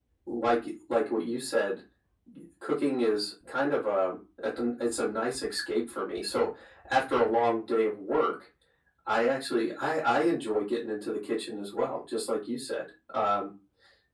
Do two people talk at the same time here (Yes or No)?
No